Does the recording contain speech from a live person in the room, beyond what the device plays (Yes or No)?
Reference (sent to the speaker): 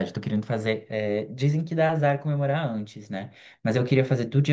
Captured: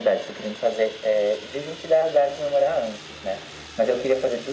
No